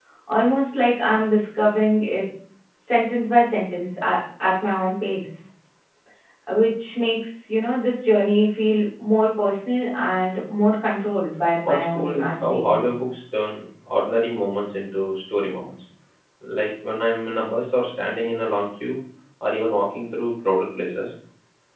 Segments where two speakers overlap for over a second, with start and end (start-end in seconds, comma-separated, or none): 11.6-13.0